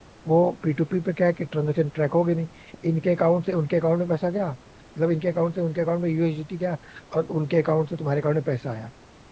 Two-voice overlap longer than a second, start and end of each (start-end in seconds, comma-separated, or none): none